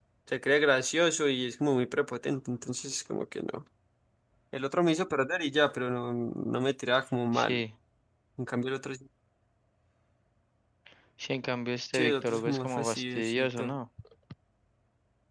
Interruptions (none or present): present